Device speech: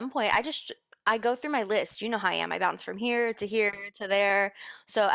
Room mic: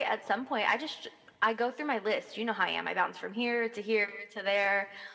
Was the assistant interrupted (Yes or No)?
No